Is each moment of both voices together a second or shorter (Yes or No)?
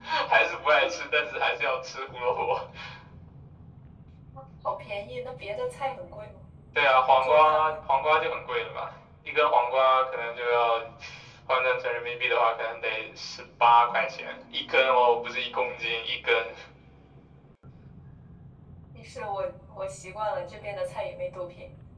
No